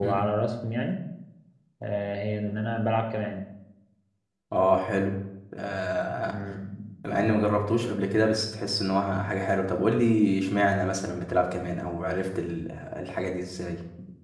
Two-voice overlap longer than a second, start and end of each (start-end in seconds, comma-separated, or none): none